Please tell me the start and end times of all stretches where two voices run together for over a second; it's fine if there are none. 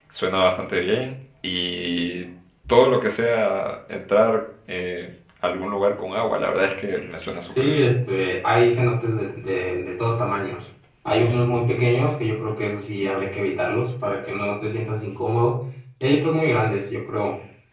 none

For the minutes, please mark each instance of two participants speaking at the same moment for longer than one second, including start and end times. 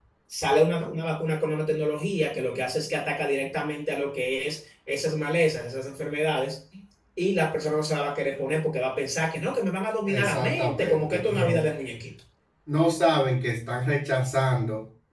10.1-11.6

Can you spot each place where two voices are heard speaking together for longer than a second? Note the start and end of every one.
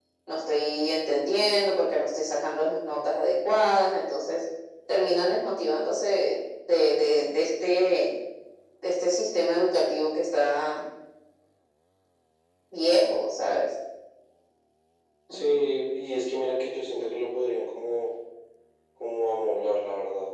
none

